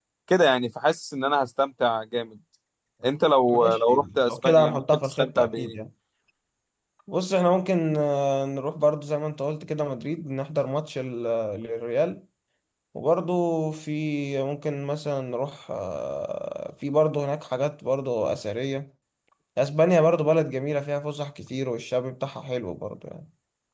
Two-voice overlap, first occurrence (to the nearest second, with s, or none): 3 s